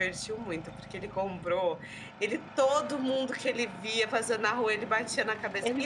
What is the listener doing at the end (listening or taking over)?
listening